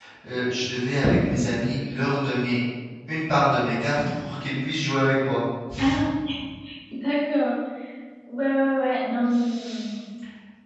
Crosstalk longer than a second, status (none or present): none